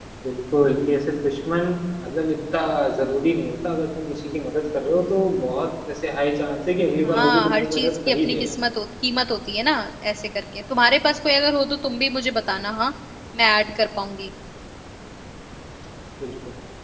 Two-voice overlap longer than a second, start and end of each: 7.0-8.5

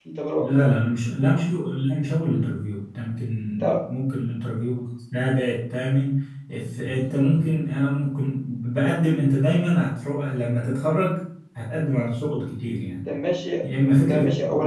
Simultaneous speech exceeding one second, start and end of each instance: none

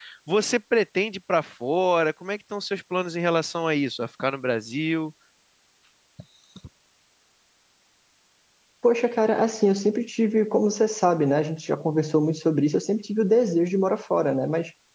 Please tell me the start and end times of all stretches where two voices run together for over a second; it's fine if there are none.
none

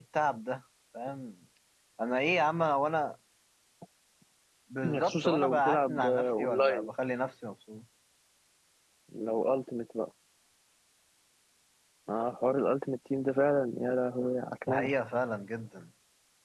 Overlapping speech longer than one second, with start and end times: 5.0-6.9

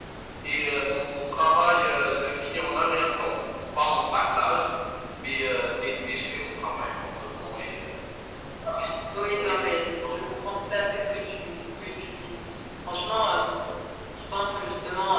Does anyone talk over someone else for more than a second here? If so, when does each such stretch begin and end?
none

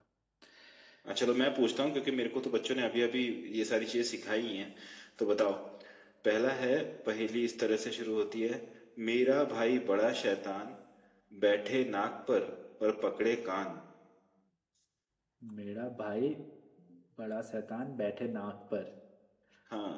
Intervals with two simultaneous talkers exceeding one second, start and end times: none

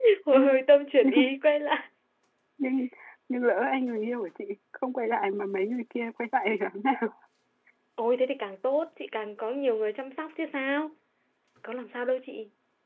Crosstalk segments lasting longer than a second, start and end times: none

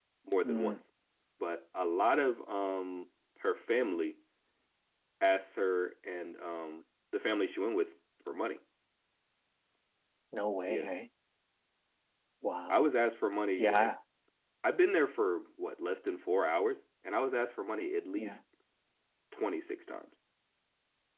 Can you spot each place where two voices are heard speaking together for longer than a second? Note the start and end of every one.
none

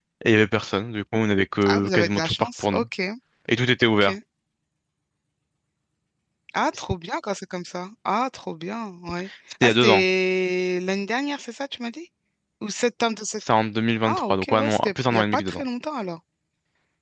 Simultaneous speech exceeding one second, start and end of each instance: 1.6-2.8, 14.1-15.6

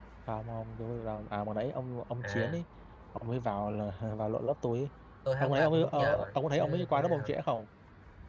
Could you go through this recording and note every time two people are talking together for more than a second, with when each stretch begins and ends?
5.4-7.3

